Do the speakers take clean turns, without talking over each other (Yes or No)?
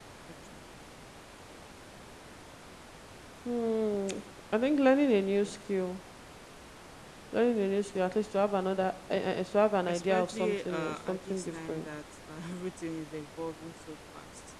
No